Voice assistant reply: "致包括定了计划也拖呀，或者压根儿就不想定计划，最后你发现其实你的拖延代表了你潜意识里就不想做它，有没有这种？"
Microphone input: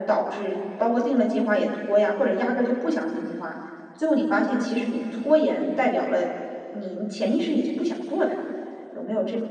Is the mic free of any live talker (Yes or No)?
Yes